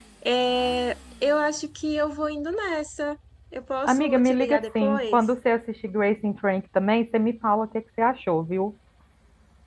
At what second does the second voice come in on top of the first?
4 s

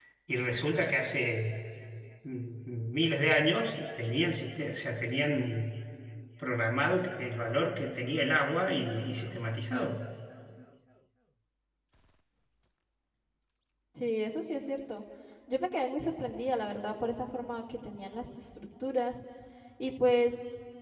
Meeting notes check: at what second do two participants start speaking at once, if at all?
none

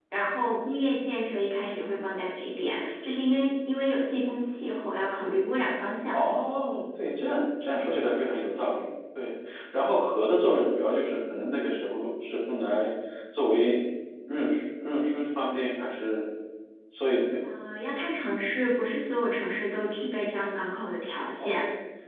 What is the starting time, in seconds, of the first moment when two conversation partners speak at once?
none

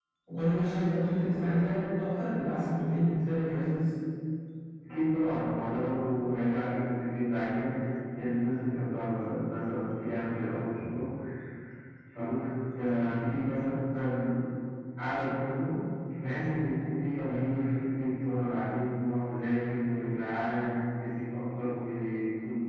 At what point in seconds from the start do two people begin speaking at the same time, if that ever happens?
none

